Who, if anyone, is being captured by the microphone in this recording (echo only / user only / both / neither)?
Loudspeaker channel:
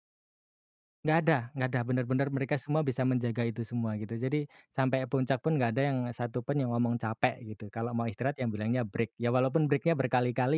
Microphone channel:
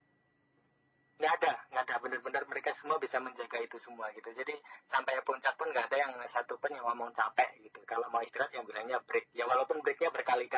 echo only